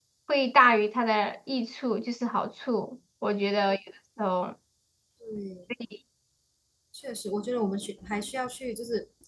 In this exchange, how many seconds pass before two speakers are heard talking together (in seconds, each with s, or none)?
none